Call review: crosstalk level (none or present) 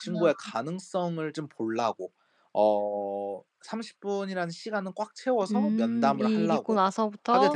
present